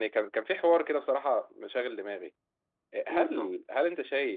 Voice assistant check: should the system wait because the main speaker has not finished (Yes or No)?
Yes